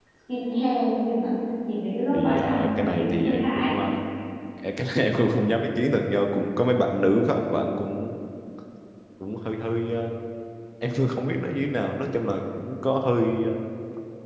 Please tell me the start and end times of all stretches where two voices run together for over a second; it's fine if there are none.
2.1-3.7

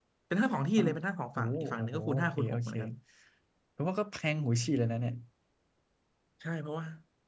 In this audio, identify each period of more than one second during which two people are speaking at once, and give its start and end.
1.4-2.7

